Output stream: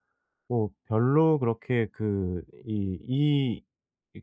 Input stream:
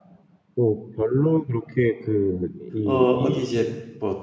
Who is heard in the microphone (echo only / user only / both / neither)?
both